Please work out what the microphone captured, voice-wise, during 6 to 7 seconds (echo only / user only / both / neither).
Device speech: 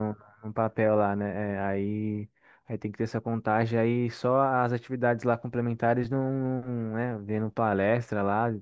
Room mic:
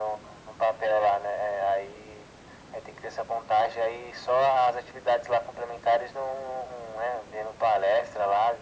echo only